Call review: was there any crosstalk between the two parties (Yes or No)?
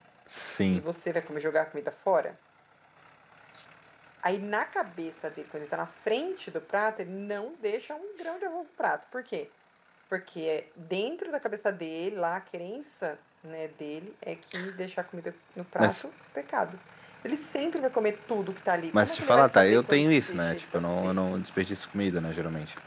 Yes